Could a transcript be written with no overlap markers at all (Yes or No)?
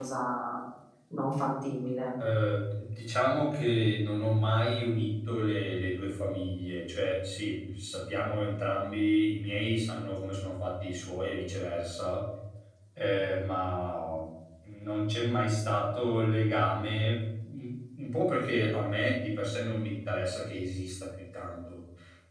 Yes